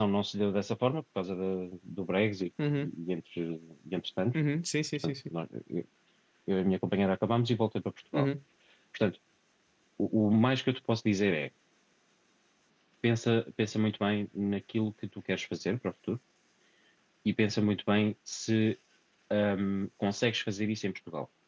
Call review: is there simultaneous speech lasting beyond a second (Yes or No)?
No